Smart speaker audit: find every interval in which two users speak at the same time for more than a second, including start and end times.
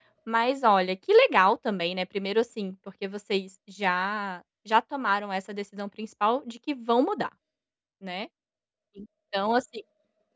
none

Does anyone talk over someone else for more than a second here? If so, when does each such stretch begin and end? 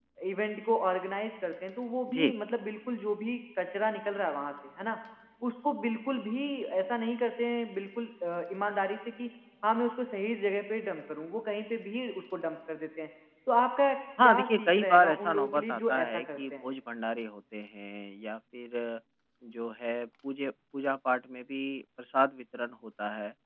14.2-16.6

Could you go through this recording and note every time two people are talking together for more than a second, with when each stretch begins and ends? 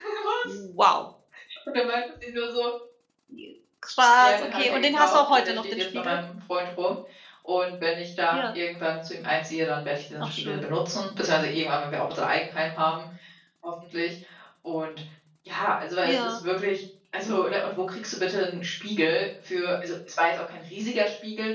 4.2-6.2

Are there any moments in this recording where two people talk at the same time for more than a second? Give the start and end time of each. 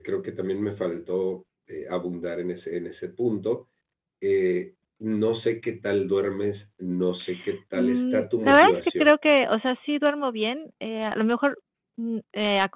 7.7-9.1

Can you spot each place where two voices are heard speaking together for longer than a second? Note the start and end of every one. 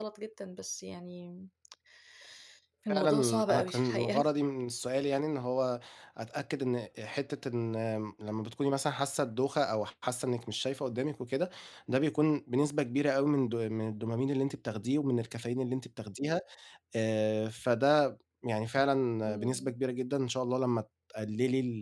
2.9-4.3

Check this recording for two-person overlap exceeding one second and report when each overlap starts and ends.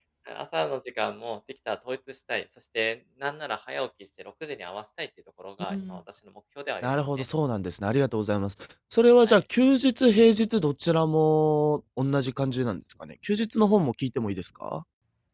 none

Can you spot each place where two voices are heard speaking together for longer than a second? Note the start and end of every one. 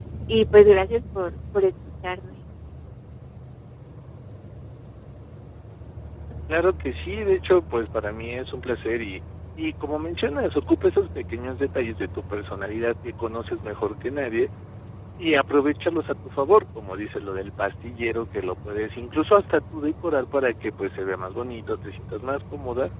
none

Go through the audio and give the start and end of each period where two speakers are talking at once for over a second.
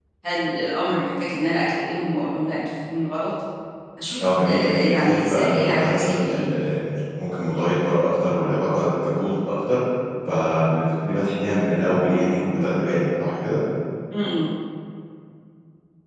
4.2-6.6

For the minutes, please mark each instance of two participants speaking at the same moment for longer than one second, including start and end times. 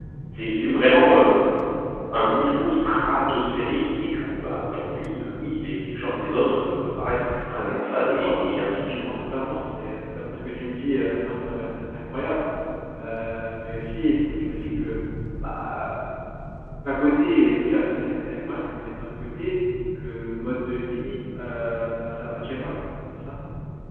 7.8-9.1

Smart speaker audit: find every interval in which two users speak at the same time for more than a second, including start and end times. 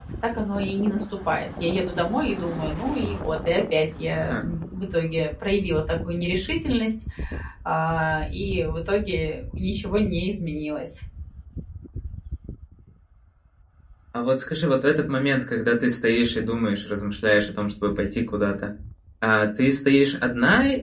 none

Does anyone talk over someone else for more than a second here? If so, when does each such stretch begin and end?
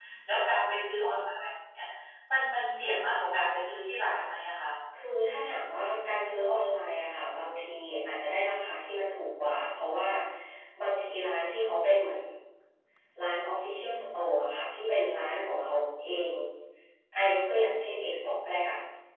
none

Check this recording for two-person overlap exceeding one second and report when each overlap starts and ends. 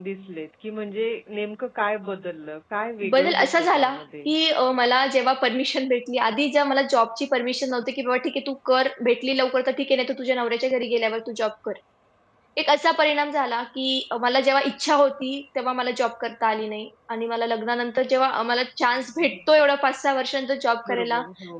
3.0-4.3

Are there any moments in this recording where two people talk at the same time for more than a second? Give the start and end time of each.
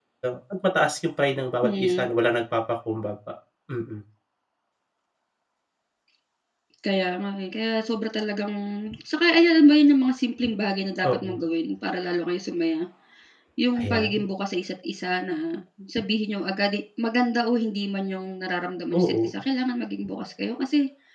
none

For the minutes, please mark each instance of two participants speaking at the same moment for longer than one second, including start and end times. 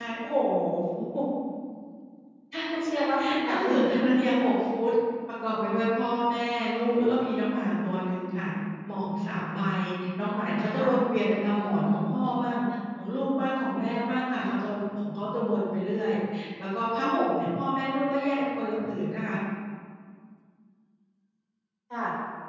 2.7-4.3

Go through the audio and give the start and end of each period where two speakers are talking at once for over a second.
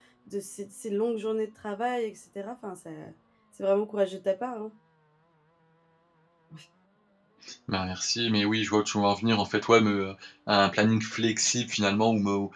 none

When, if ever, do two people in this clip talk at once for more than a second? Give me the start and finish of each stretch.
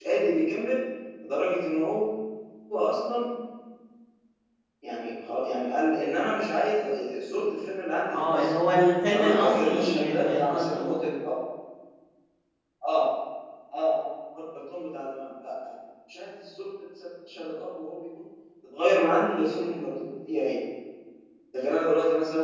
9.1-11.0

